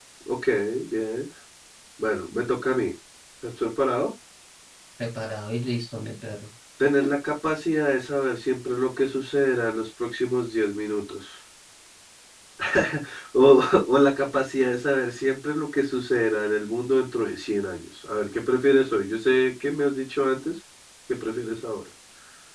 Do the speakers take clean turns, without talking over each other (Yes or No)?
Yes